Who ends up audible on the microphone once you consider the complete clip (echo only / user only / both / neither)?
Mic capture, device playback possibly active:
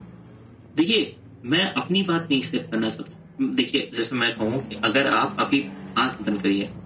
echo only